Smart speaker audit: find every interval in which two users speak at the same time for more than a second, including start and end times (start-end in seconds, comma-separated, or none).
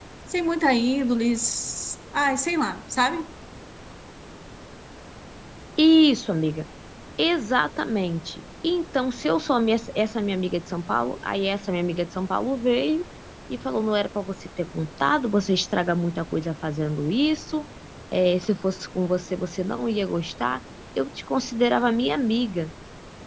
none